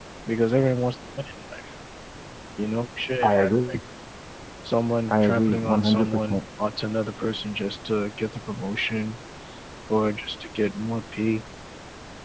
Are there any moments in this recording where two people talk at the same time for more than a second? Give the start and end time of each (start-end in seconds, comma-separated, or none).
5.1-6.4